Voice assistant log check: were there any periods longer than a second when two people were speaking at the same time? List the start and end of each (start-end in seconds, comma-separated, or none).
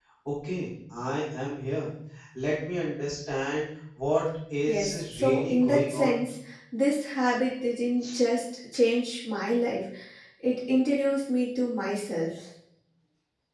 4.7-6.2